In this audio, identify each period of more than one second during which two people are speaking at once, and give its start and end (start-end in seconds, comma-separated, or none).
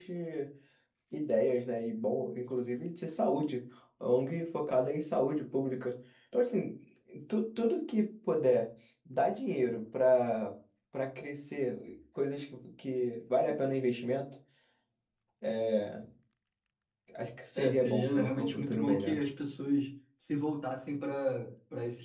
17.6-19.2